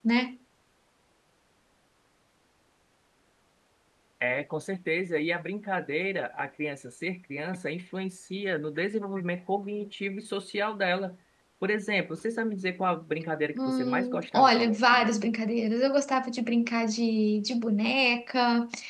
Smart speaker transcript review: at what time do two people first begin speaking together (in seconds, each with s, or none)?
13.6 s